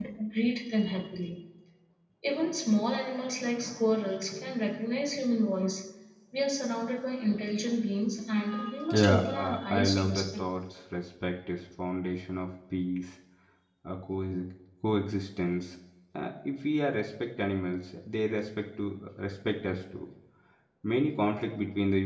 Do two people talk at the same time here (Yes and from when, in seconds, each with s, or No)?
Yes, from 8.9 s